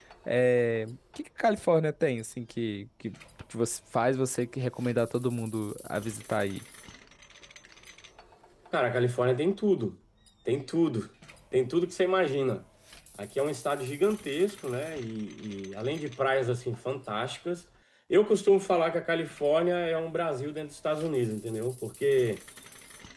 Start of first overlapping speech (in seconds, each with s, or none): none